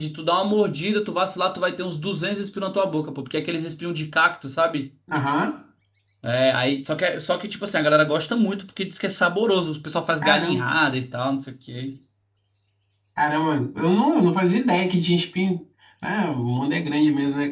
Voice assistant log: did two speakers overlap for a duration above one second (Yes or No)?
No